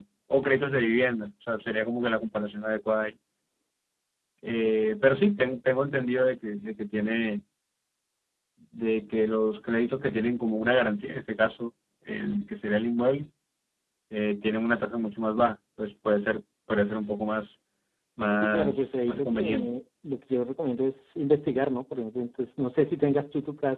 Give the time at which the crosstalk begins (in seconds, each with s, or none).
18.4 s